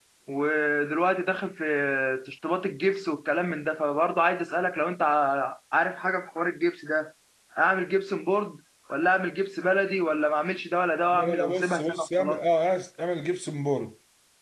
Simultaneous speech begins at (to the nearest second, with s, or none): 11 s